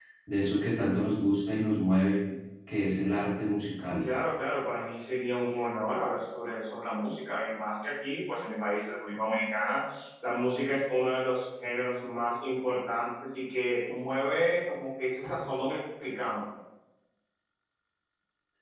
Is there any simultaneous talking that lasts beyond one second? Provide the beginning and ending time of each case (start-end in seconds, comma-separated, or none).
none